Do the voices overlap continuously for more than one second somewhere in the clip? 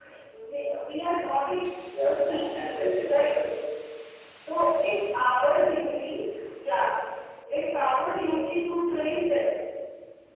Yes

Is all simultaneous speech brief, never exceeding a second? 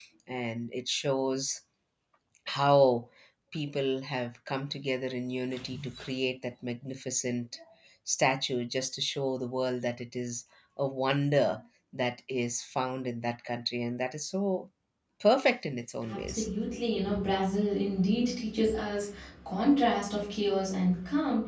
Yes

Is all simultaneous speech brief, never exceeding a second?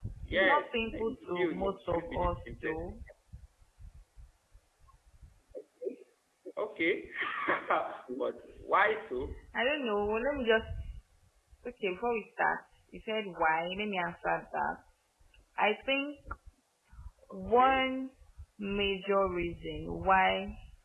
No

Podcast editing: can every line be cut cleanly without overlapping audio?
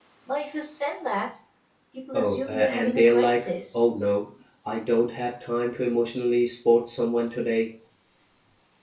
No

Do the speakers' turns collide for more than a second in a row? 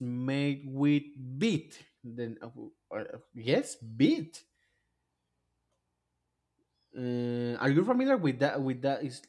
No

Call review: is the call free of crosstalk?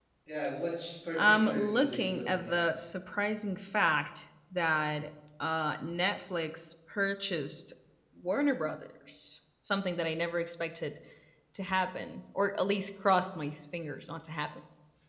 No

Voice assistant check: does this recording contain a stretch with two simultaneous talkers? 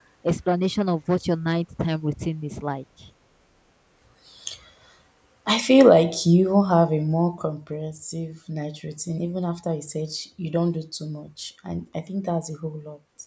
No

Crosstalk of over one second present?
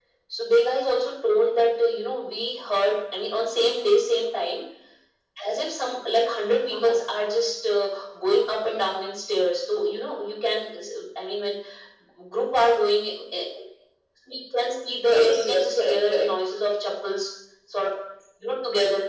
Yes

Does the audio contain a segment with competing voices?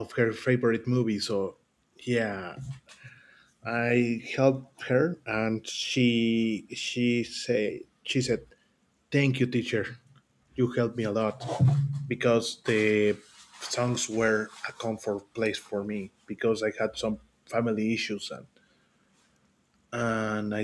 No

